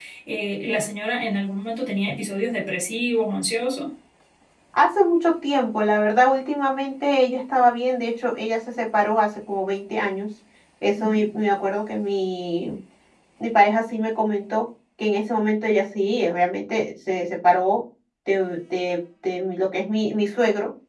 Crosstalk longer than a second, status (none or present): none